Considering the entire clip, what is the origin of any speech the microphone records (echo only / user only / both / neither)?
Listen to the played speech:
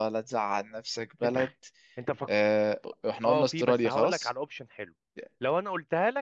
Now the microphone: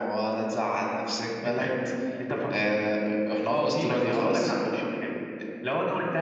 echo only